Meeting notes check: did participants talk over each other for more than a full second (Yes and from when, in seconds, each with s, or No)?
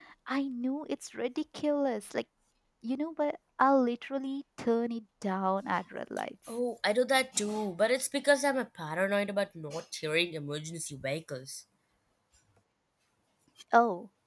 No